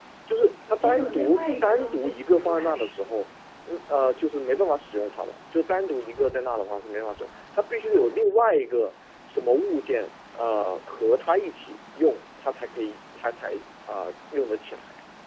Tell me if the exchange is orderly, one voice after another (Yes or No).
No